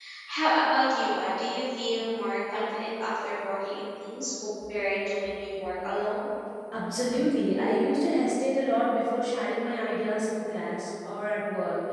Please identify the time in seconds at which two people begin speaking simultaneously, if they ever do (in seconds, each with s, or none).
none